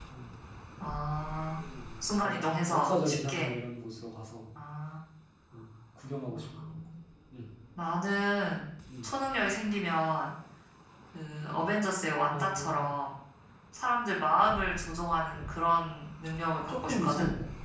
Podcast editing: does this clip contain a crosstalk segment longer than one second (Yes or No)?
Yes